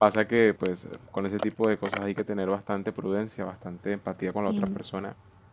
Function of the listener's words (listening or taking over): listening